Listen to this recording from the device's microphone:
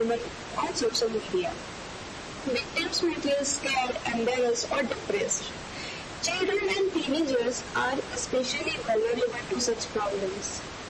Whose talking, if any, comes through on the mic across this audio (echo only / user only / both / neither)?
echo only